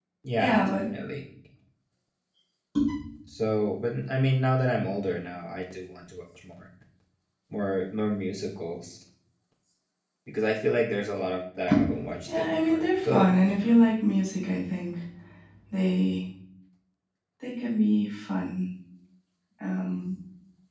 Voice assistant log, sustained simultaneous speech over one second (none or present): present